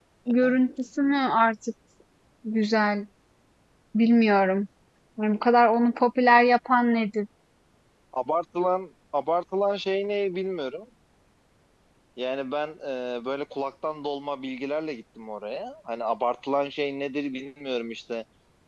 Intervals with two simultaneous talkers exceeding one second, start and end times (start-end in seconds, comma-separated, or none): none